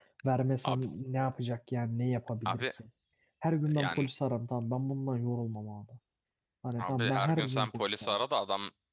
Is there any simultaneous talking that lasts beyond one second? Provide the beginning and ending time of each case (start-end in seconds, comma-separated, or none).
6.8-8.2